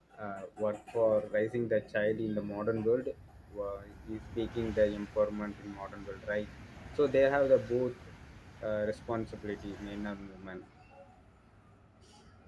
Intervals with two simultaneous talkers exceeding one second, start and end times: none

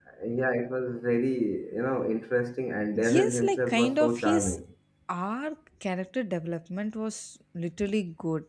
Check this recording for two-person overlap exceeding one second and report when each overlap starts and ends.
3.0-4.6

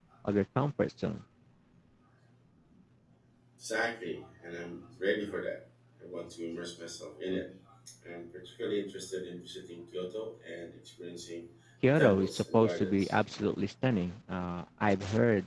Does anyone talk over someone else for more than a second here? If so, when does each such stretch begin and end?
11.8-13.2

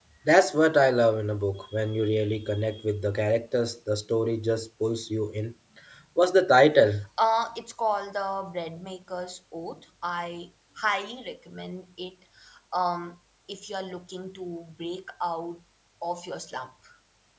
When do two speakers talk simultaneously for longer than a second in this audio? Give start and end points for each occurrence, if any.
none

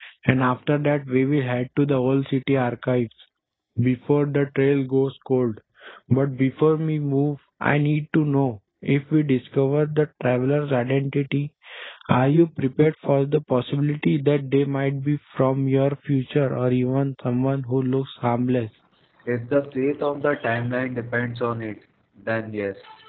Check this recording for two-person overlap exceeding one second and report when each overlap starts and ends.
none

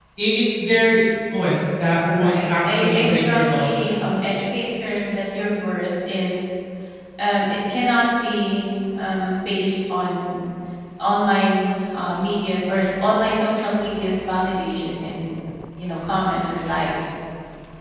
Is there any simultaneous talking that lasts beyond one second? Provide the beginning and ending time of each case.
2.2-3.9

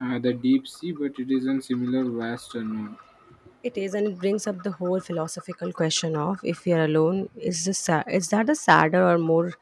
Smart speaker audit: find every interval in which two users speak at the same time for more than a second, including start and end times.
none

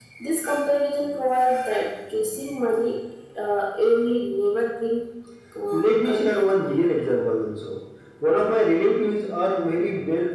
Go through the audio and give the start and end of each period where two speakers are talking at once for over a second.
5.7-7.0

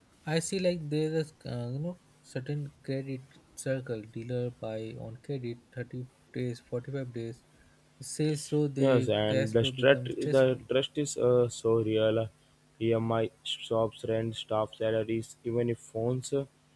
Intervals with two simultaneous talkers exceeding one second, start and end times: 8.8-10.6

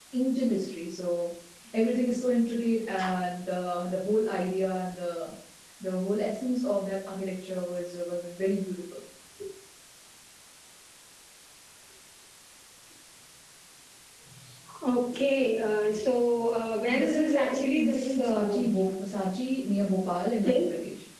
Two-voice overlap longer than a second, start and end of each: 16.9-18.7

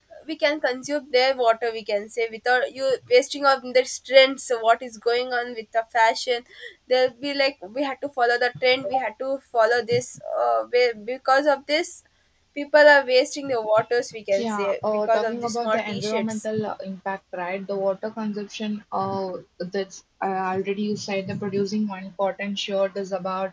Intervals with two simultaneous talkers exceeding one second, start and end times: 14.4-16.4

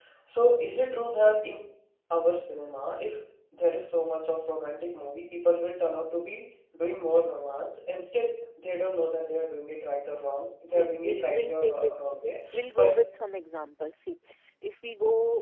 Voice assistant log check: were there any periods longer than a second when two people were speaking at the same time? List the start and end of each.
10.7-12.9

